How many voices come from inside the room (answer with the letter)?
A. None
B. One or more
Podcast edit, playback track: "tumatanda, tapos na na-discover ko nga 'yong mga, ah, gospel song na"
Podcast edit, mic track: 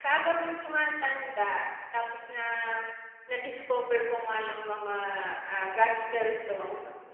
A